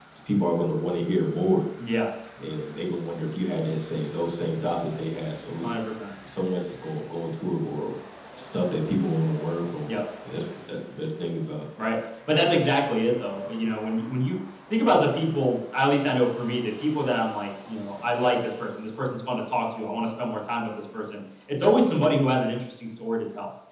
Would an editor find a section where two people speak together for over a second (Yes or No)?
No